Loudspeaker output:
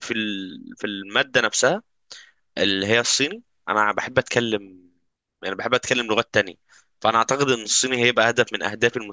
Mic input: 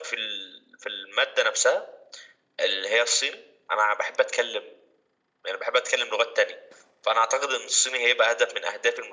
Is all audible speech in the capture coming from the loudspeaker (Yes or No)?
Yes